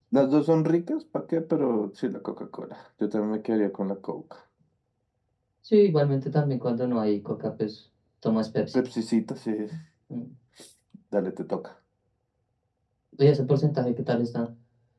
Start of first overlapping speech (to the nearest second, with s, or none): none